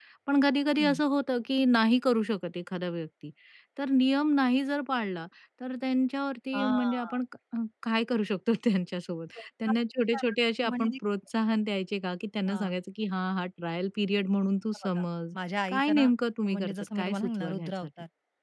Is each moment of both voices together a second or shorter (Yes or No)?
No